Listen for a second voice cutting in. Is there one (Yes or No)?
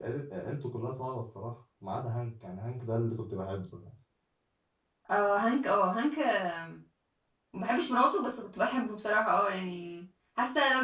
No